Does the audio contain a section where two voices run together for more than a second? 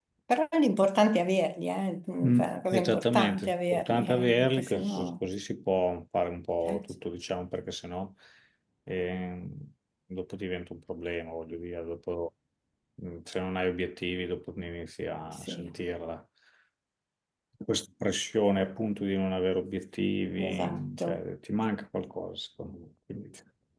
Yes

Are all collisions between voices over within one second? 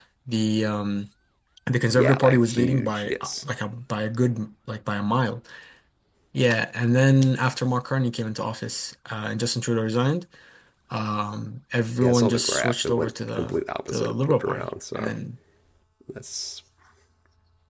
No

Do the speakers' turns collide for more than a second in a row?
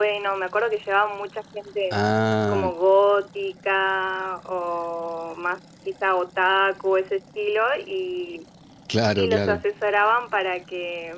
No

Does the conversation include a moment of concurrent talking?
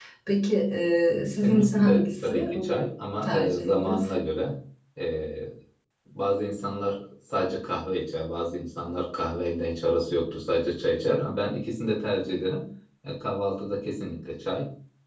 Yes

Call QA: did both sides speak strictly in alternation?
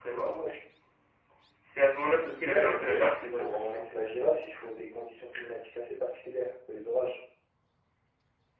No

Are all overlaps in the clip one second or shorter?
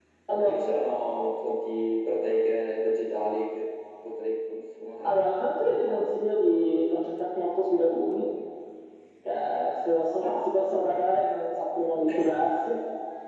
Yes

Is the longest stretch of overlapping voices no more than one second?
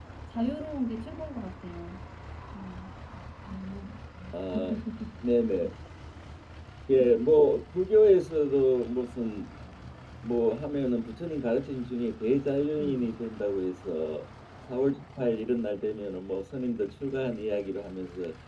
Yes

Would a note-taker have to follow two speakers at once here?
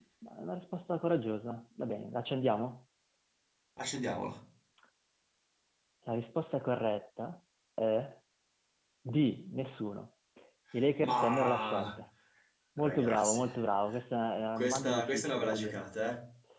Yes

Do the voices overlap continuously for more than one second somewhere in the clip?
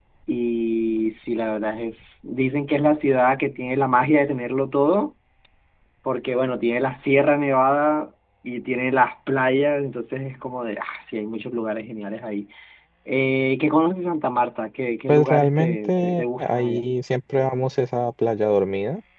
Yes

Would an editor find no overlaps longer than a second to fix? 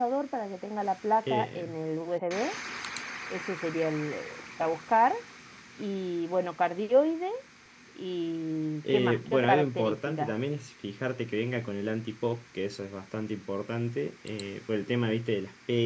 No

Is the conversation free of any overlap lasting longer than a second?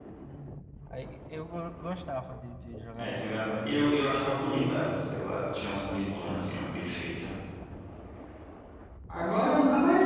No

